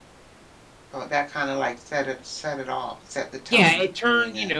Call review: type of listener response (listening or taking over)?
taking over